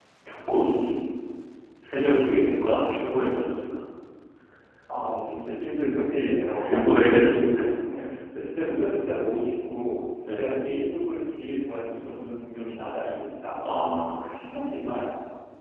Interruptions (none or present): present